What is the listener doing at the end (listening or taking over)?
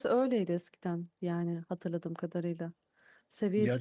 listening